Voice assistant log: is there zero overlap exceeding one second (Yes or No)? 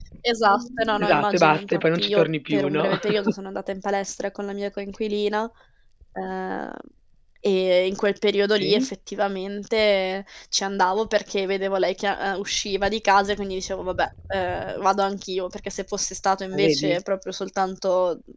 No